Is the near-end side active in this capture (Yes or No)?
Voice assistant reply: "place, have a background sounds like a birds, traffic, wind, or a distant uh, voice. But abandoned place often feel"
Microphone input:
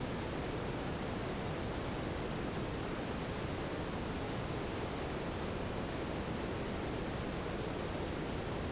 No